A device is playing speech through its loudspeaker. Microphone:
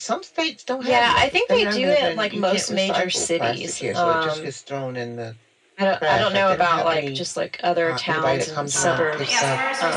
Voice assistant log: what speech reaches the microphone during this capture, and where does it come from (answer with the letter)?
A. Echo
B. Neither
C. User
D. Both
D